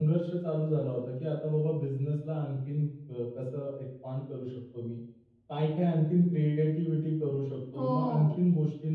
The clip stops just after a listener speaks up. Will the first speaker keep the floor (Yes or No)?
Yes